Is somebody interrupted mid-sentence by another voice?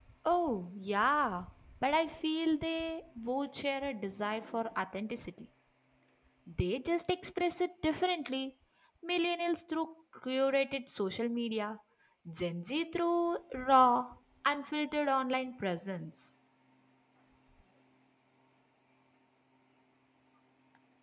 No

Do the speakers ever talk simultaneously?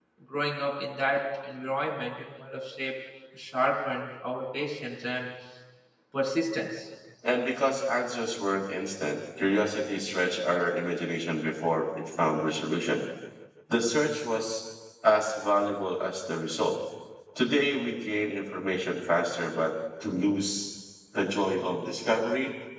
No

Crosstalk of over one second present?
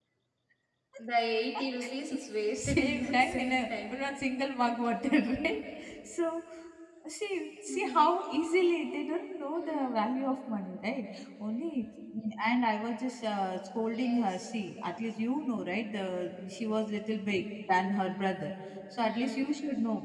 Yes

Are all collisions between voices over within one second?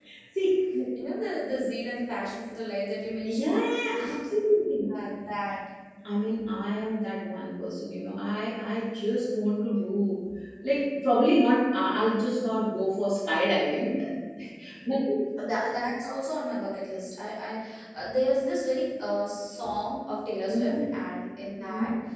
Yes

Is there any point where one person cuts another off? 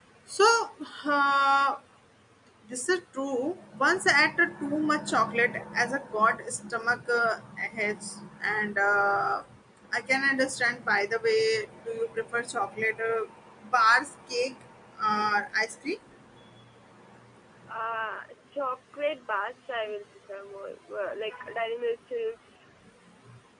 No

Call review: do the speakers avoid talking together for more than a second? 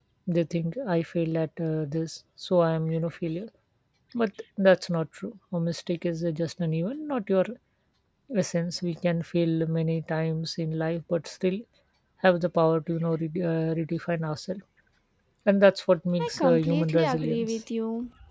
No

